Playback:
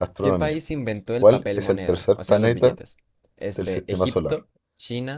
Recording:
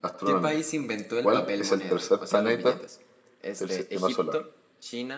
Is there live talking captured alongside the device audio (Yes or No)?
No